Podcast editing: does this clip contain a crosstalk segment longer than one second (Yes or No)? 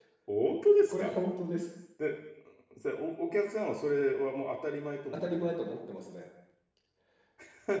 No